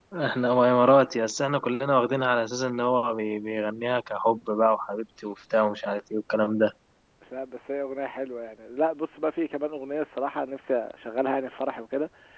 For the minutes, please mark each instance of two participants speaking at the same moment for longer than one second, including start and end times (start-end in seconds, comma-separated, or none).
none